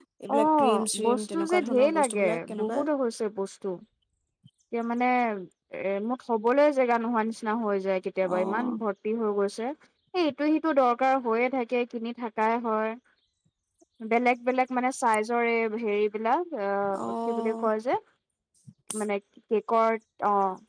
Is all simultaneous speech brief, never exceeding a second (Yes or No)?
No